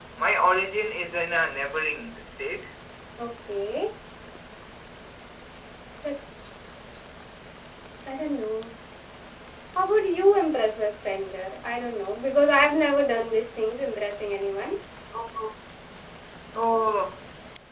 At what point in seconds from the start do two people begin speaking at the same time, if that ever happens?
none

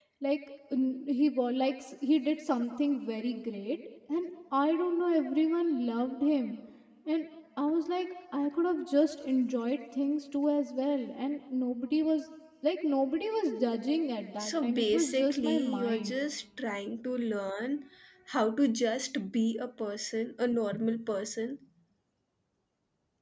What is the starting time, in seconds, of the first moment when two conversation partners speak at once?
14 s

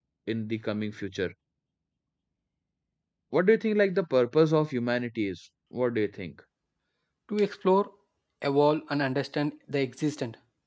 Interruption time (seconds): none

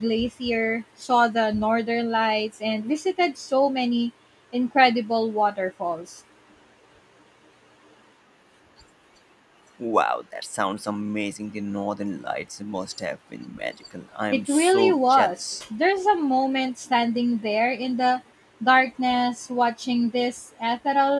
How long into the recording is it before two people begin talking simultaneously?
14 s

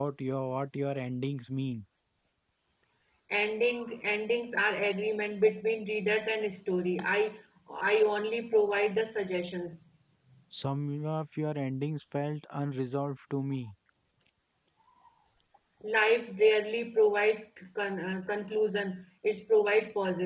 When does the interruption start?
none

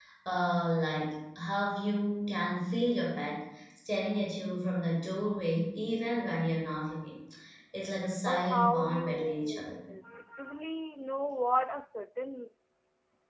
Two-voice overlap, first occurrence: 8 s

